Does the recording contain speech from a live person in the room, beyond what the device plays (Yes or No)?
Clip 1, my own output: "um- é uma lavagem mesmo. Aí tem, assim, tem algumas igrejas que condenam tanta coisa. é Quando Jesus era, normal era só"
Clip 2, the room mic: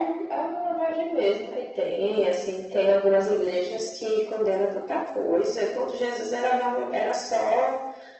No